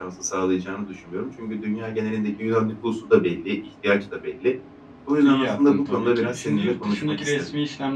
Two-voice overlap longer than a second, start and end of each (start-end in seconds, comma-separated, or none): 5.2-7.5